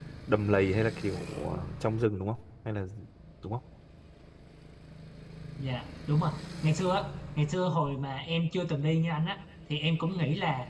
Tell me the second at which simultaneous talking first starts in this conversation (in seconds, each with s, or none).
none